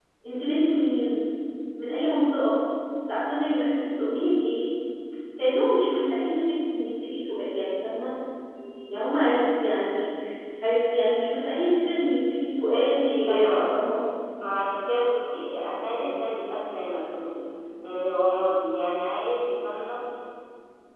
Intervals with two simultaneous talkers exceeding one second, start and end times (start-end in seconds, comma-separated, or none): 12.7-13.9